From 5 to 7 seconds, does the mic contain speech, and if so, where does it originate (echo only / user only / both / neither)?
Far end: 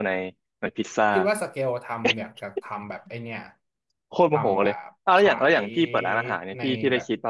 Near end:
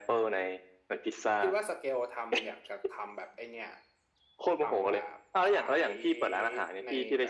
echo only